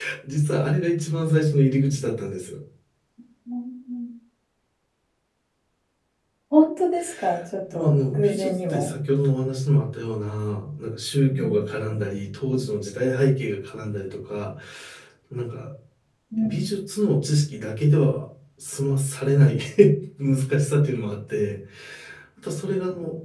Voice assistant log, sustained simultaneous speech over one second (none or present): present